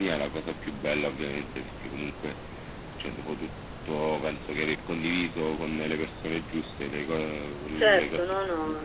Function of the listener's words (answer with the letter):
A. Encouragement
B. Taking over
B